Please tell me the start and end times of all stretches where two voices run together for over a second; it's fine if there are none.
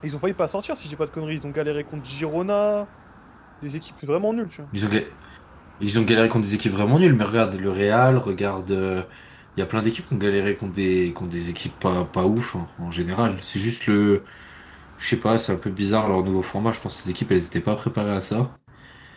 none

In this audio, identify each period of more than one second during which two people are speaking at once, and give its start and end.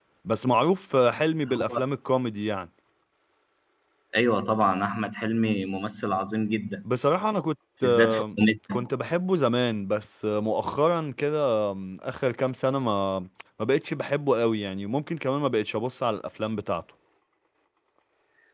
none

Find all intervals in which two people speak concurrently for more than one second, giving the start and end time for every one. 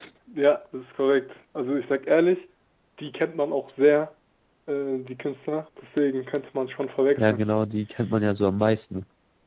none

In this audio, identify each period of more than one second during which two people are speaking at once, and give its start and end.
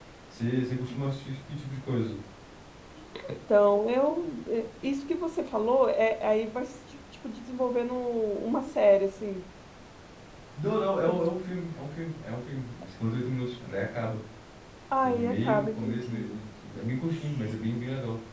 15.0-16.4

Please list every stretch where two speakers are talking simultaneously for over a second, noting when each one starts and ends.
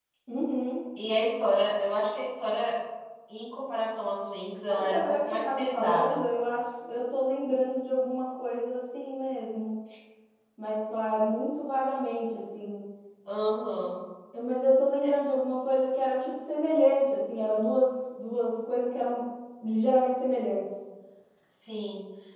4.7-6.2

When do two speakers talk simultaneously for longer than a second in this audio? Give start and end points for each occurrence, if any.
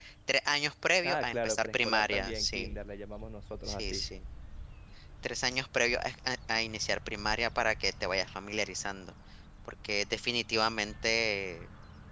1.0-2.7

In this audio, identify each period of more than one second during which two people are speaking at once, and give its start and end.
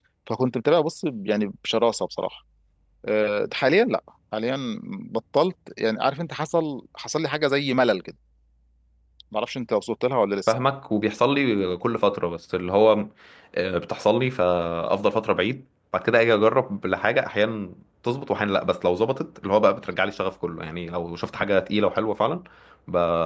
none

